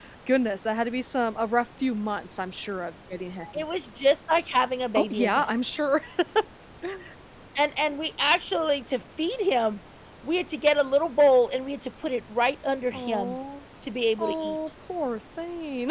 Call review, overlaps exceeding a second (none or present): none